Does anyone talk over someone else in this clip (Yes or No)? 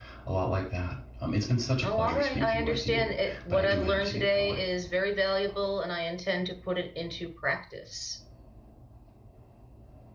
Yes